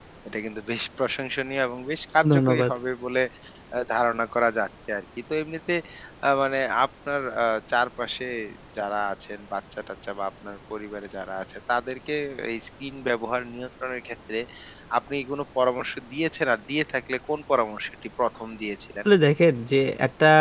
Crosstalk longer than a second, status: none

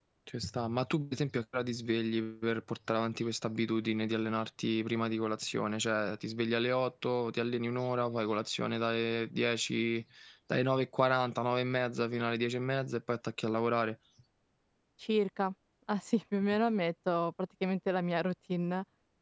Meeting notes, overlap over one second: none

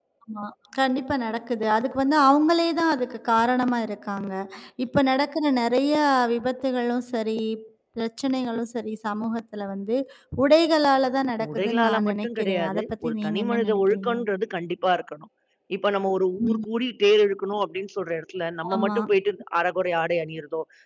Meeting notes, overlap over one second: present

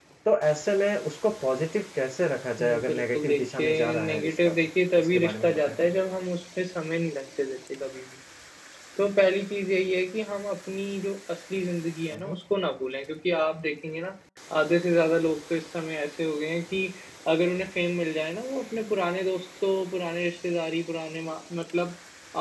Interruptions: present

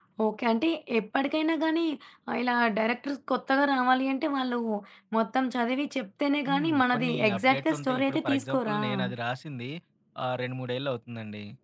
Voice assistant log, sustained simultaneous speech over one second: present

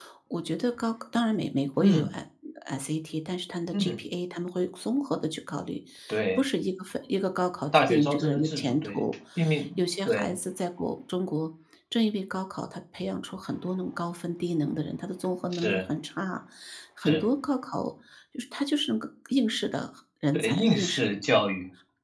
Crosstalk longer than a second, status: present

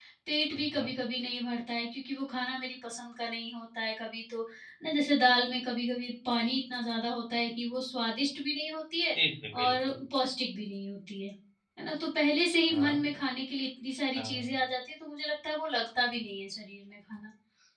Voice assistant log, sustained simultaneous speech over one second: none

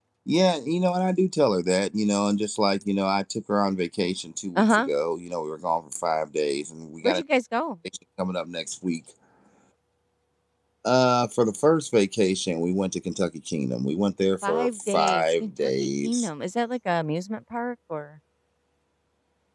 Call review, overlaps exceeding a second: present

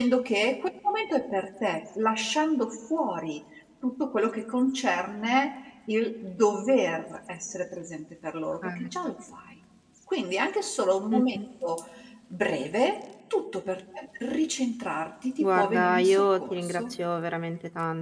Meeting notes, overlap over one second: present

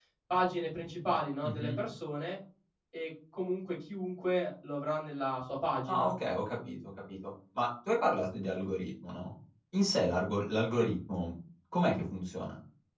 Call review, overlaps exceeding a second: none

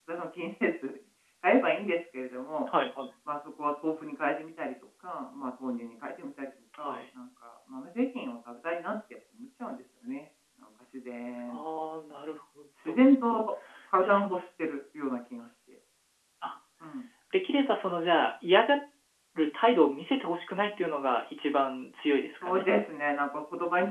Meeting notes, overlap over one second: none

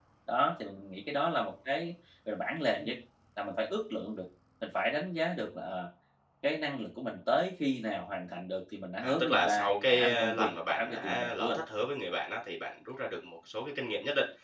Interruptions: present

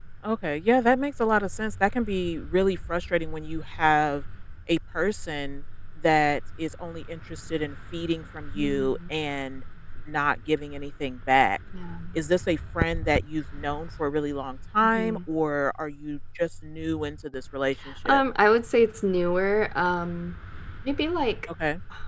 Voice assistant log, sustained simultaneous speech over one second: none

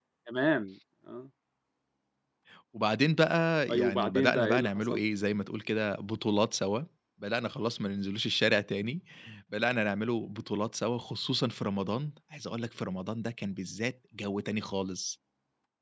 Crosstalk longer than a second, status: present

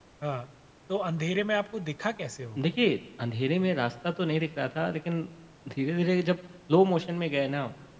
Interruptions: none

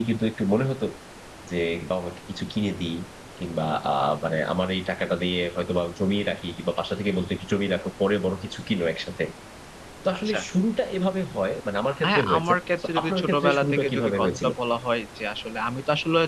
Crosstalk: present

